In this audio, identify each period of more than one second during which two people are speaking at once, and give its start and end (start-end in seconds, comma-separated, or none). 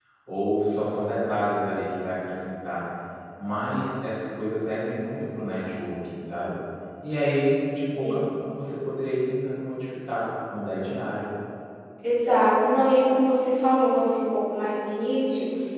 none